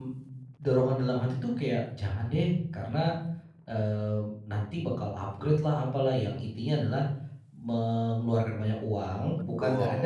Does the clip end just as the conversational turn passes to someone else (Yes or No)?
No